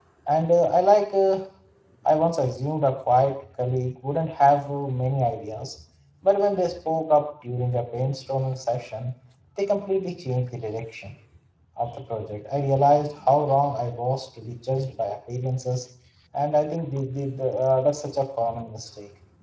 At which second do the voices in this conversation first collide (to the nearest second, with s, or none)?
none